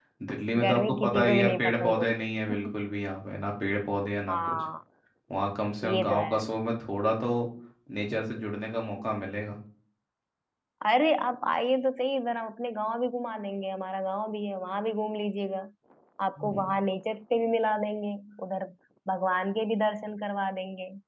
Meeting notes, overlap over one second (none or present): present